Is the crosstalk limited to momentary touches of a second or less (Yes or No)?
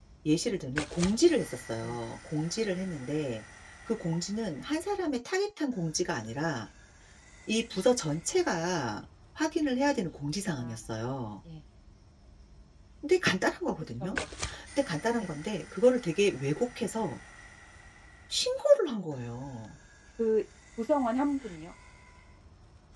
Yes